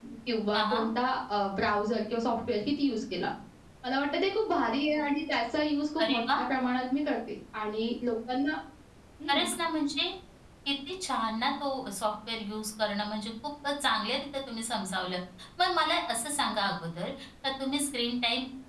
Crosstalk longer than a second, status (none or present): none